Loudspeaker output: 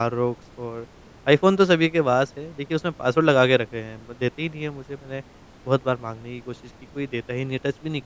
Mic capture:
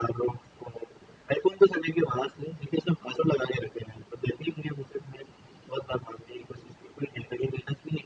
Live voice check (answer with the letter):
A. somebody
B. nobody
B